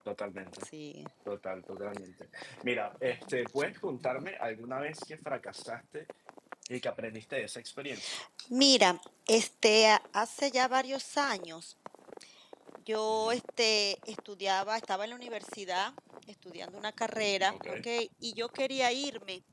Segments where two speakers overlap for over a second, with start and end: none

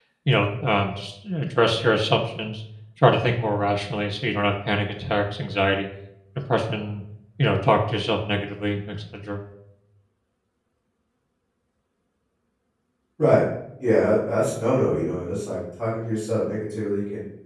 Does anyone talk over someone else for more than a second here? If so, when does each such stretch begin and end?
none

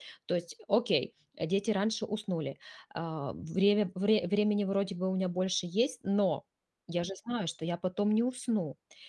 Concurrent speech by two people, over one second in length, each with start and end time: none

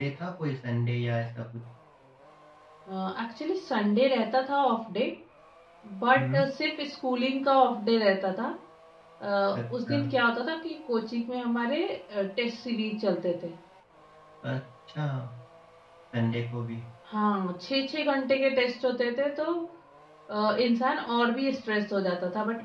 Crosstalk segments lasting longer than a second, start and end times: none

